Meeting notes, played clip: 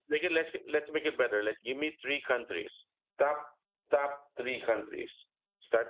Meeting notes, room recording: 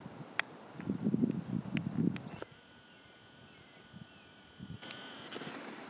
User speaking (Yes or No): No